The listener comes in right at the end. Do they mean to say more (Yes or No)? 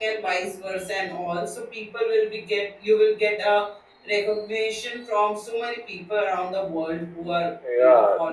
Yes